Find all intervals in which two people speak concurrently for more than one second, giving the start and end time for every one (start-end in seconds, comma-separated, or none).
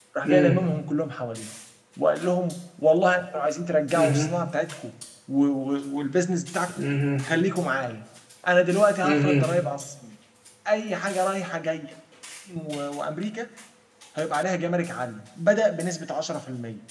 none